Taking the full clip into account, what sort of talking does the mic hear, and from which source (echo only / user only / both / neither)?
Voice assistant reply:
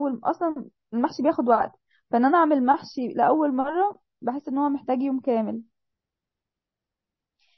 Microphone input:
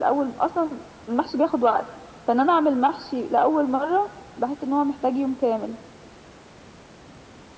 echo only